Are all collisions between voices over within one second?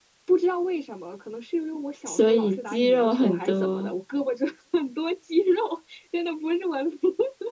No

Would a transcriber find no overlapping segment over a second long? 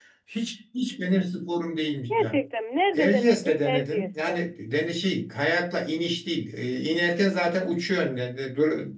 No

